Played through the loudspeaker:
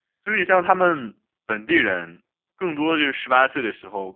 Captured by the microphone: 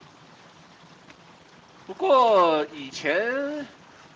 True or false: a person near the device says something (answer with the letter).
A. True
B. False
A